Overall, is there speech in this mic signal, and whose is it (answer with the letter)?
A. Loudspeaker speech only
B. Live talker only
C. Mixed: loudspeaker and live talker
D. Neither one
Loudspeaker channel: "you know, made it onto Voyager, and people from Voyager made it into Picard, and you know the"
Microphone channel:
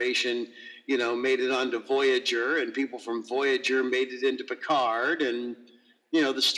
A